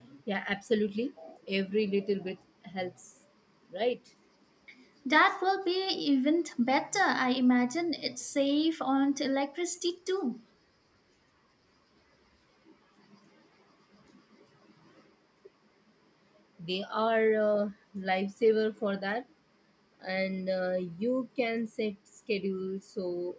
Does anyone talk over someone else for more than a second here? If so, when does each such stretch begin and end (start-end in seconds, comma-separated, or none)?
none